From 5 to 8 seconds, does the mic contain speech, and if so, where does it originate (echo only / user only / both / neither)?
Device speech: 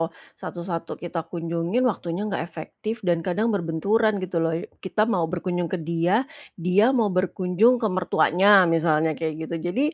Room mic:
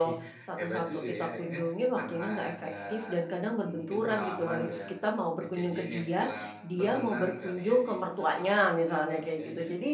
both